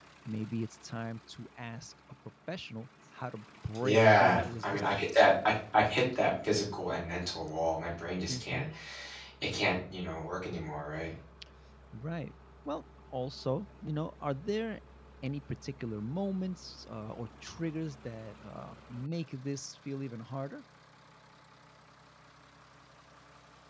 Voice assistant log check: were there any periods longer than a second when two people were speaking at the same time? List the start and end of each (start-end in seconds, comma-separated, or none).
3.8-5.2